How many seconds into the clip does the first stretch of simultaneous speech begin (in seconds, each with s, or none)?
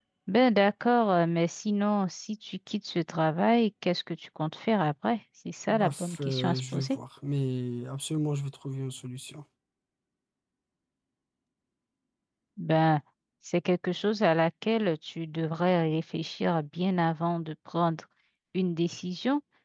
5.7 s